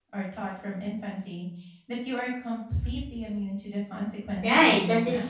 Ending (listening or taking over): taking over